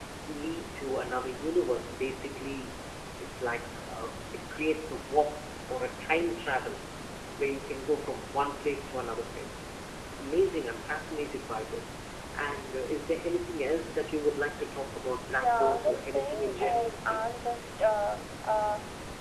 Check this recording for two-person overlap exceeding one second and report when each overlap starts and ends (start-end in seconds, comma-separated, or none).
15.3-17.3